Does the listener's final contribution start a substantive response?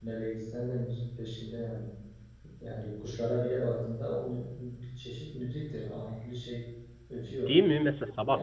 Yes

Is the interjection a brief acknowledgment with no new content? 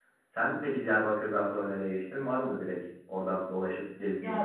No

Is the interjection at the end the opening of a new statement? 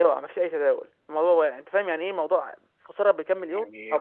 Yes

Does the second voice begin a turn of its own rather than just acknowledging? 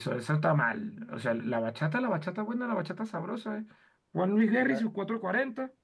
No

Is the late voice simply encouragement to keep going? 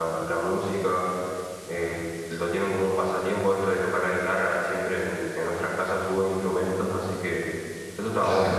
No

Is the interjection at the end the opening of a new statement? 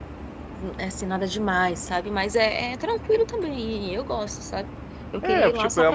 Yes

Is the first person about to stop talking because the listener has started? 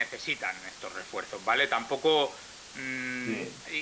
No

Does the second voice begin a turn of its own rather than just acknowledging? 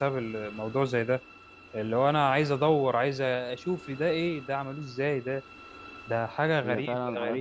Yes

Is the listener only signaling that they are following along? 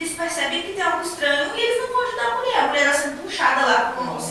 Yes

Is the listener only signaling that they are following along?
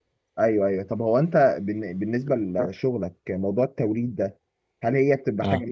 Yes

